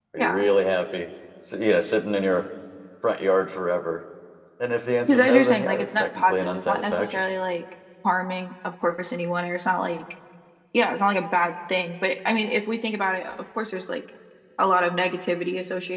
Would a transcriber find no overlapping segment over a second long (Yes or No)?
No